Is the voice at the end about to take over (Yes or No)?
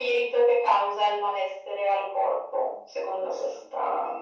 Yes